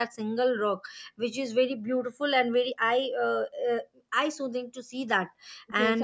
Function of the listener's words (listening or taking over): taking over